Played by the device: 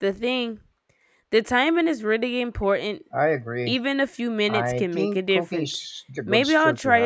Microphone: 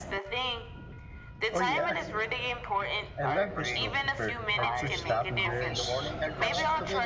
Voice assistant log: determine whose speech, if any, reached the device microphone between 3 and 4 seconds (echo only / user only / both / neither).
both